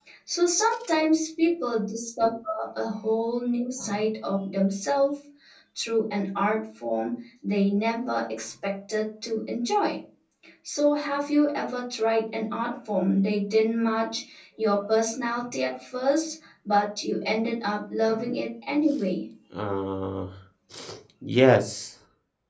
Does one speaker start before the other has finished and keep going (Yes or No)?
No